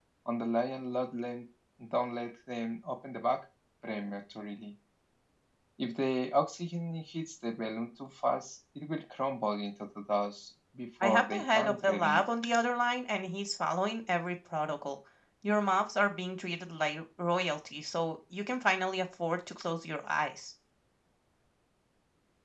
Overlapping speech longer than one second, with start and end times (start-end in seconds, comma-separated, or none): 11.0-12.2